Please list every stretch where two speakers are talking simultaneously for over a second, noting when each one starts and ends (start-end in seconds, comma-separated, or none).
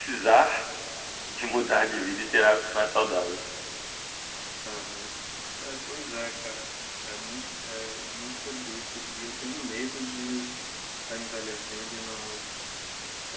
none